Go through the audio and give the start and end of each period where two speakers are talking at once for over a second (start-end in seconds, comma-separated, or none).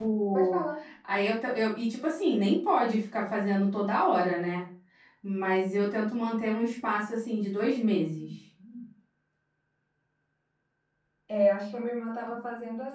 none